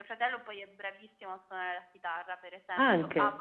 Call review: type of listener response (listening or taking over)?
listening